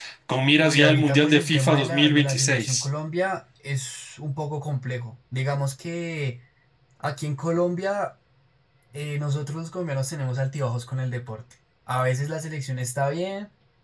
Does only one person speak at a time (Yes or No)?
No